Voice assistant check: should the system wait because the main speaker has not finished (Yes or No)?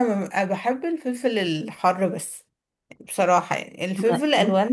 Yes